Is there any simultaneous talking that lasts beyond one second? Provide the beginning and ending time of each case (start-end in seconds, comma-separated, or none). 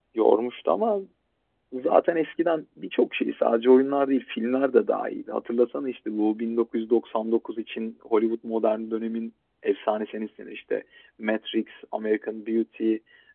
none